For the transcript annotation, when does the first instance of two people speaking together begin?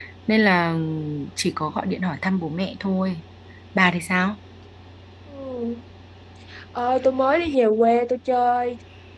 none

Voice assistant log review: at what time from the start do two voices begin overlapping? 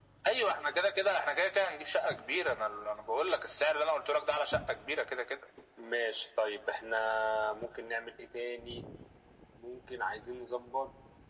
none

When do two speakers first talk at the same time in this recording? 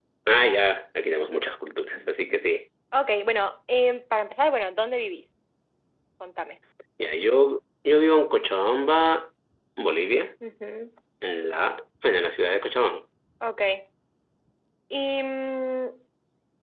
none

